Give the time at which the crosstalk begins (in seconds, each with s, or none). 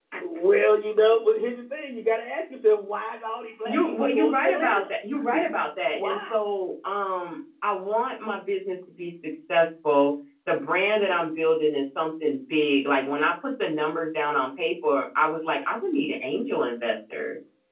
3.6 s